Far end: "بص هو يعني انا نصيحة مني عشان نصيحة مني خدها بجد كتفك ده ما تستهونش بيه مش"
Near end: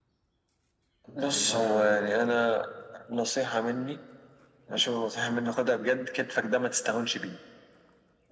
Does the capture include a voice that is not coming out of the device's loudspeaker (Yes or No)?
Yes